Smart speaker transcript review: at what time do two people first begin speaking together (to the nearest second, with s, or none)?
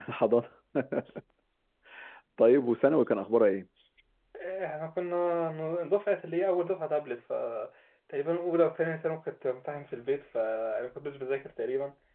none